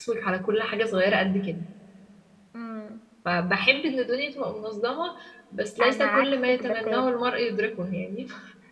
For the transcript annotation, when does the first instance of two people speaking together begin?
5.8 s

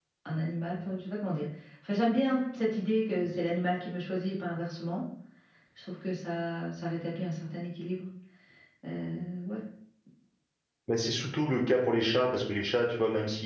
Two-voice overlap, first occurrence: none

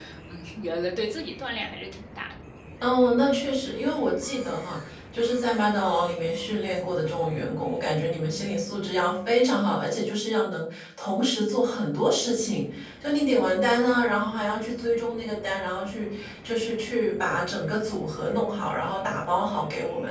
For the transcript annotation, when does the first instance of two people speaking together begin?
none

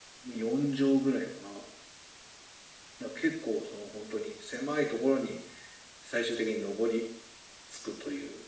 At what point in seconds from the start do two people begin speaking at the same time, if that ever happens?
none

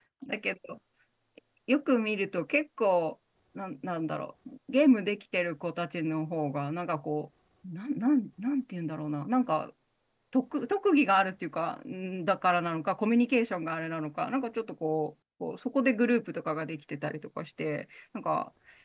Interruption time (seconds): none

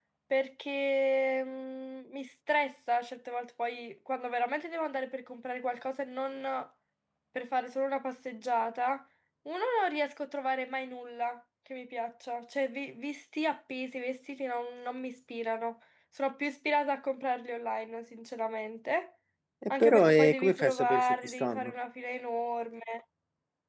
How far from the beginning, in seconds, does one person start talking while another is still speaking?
19.7 s

